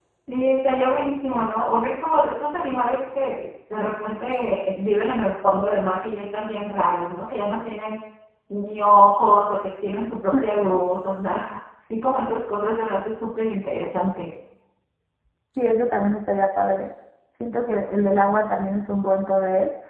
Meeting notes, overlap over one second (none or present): none